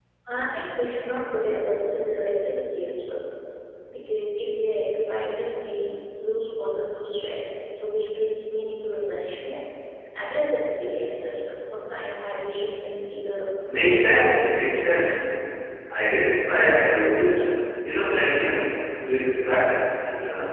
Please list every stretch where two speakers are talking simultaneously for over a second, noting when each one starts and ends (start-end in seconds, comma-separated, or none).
13.8-15.2